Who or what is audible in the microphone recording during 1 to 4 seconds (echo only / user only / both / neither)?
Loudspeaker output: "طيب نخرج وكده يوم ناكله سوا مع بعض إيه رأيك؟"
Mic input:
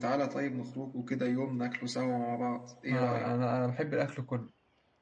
both